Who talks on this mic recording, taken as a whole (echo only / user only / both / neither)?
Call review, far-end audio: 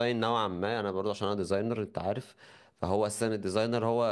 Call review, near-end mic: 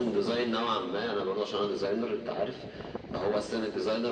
echo only